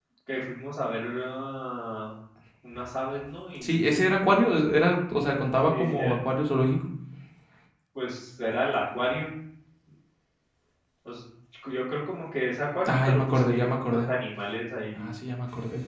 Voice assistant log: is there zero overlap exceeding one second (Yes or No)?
No